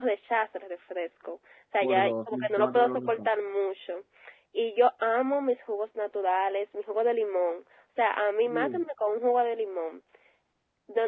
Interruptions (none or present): present